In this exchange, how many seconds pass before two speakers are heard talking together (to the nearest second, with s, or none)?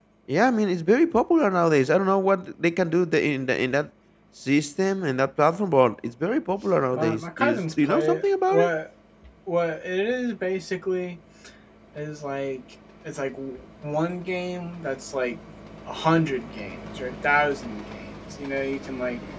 7 s